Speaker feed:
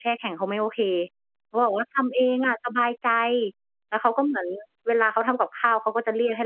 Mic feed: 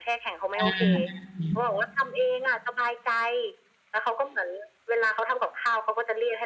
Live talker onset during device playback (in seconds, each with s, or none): 0.5 s